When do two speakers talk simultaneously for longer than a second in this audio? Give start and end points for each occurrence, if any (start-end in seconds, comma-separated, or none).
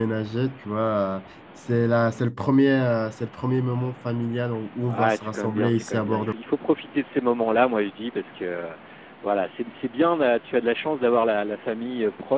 4.9-6.3